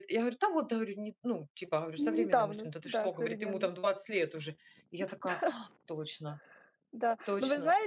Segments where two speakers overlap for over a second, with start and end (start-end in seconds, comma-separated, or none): 2.0-3.7